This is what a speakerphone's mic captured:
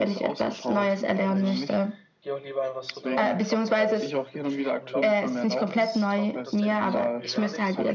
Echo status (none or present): present